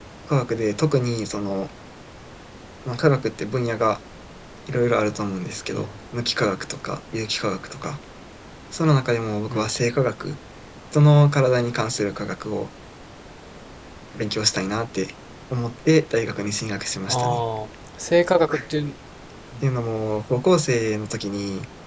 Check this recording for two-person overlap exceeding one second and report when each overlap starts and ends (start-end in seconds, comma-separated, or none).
none